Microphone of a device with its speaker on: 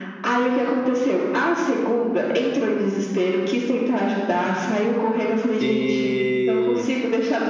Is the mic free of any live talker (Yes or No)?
No